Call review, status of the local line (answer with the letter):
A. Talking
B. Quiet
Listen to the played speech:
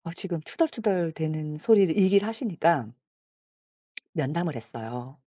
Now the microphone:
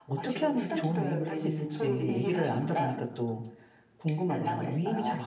A